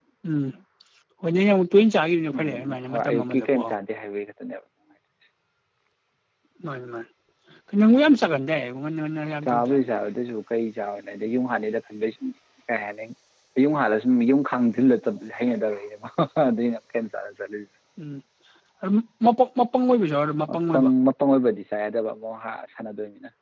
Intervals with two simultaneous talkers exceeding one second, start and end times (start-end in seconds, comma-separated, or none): 2.4-3.7